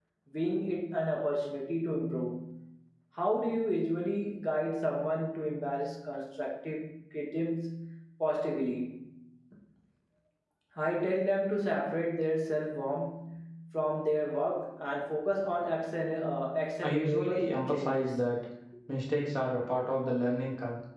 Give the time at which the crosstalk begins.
16.8 s

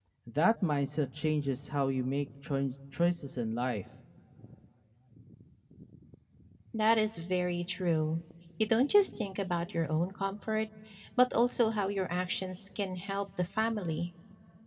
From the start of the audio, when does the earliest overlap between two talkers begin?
none

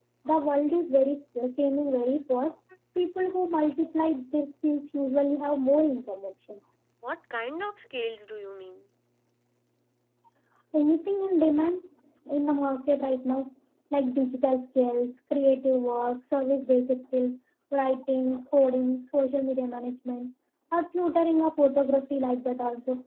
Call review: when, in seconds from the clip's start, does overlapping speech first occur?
none

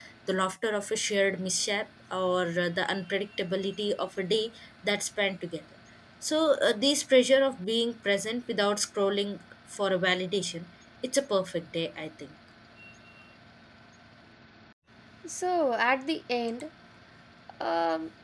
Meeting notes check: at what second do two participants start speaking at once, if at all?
none

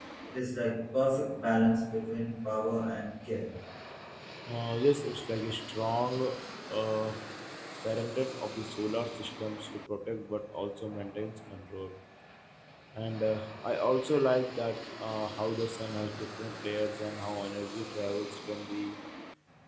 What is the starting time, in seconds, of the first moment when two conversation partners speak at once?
none

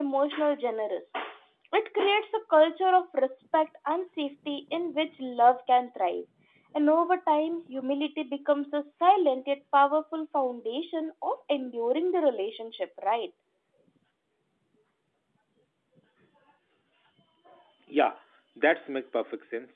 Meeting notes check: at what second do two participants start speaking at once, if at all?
none

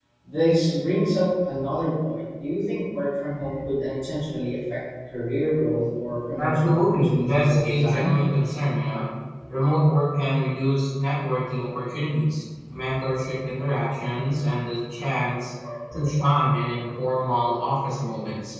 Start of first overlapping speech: 6.4 s

